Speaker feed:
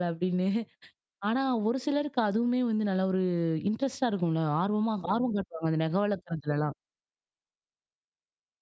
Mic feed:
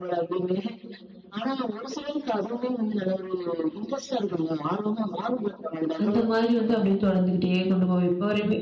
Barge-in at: 6.0 s

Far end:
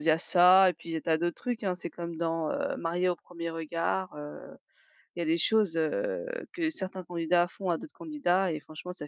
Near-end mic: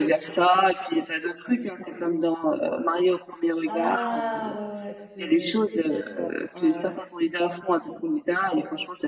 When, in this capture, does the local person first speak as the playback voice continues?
3.7 s

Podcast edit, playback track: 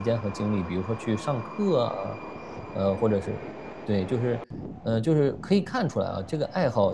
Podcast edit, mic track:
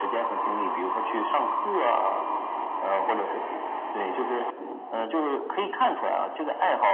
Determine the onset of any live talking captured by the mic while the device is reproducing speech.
none

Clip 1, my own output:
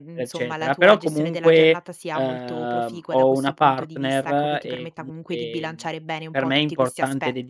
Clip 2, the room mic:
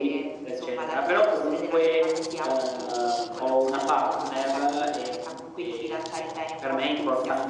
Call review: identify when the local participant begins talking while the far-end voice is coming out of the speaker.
none

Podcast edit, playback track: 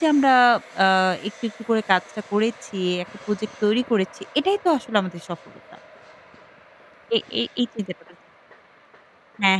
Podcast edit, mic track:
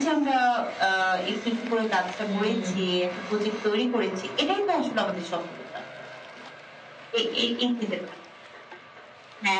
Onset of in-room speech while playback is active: 2.2 s

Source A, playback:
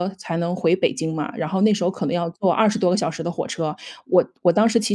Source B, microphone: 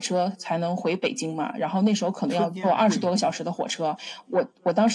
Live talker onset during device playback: 2.2 s

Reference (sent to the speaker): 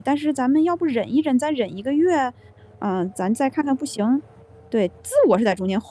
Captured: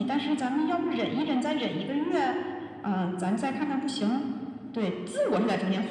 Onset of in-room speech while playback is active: none

